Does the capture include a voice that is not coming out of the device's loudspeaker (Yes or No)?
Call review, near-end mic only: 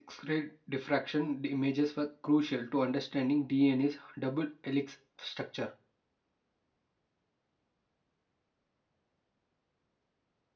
Yes